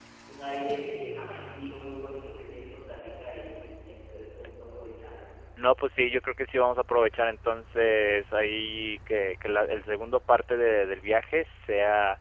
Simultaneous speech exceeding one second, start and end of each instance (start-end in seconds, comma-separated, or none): none